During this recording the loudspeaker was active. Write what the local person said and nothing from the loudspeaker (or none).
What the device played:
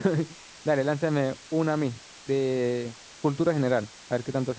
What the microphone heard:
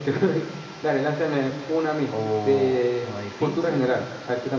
o una difícil?